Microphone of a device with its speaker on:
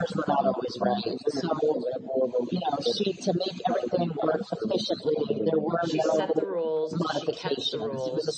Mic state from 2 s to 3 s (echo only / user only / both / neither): echo only